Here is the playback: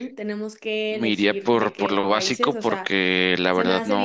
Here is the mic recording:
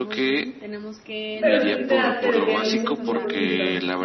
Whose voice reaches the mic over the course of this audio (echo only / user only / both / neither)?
both